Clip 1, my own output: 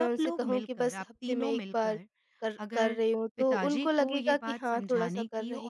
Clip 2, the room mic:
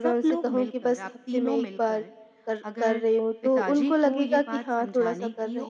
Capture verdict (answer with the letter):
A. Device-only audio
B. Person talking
A